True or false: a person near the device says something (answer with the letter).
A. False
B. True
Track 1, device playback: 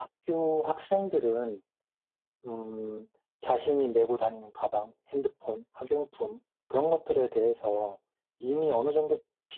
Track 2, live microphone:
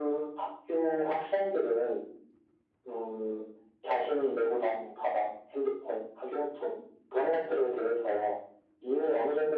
A